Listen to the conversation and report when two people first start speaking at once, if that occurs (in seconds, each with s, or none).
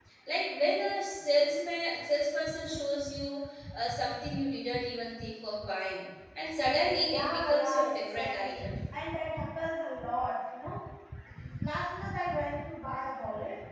6.8 s